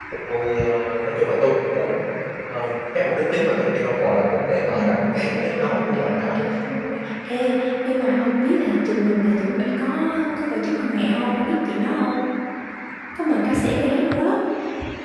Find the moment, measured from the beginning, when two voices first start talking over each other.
5 s

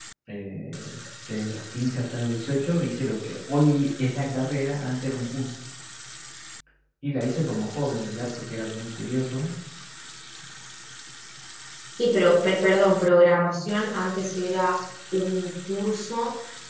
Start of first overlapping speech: none

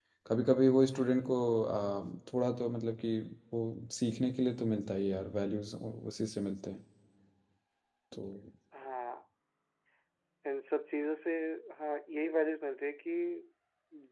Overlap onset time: none

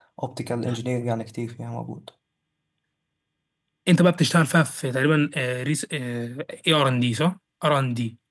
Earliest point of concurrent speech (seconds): none

